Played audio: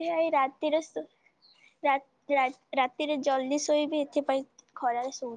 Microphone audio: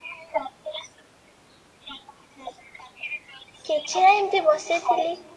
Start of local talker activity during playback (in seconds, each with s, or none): 3.7 s